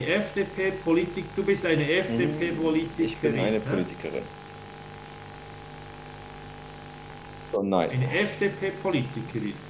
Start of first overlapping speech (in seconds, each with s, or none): 2.1 s